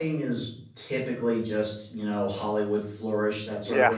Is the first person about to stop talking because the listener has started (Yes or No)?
No